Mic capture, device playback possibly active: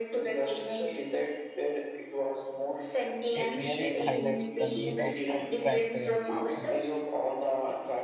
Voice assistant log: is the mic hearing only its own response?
No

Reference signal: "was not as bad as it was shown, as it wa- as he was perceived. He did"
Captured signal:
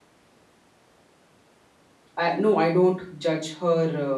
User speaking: Yes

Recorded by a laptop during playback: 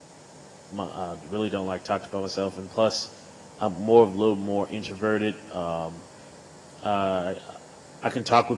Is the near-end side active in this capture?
Yes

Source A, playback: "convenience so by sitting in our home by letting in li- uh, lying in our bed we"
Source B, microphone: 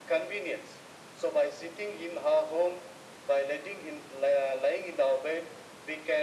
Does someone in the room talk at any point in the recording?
No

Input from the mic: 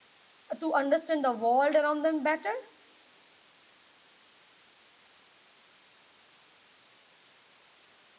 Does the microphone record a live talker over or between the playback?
Yes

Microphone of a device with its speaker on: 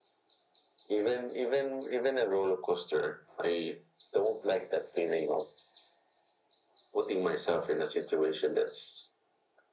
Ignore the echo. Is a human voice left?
No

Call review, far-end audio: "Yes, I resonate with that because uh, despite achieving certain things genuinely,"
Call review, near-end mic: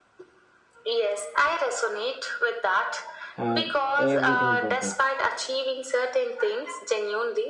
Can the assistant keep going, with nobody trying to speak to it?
No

